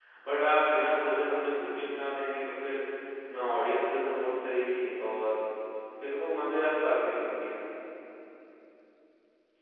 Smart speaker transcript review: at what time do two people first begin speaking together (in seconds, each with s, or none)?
none